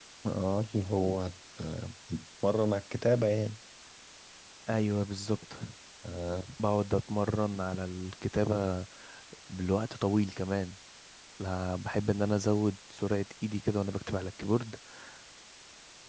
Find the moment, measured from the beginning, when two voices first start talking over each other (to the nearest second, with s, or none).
none